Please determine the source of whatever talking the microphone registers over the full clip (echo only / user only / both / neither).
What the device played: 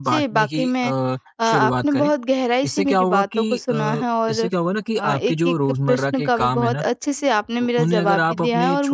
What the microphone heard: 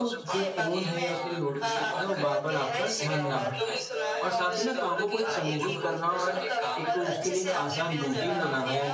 both